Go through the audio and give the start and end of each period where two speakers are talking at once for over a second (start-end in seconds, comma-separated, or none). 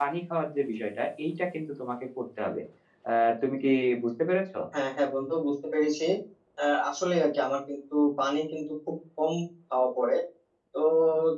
none